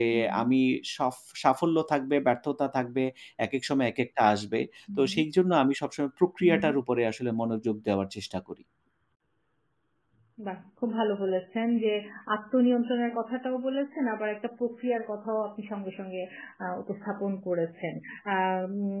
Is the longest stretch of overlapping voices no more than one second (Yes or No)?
Yes